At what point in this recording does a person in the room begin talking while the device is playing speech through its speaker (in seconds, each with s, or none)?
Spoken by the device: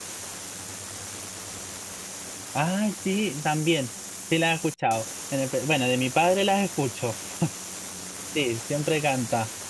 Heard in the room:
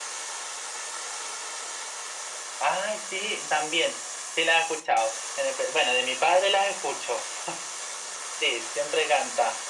none